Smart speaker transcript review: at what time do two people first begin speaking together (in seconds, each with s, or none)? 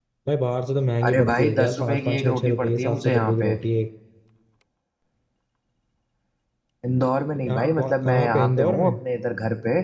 1.1 s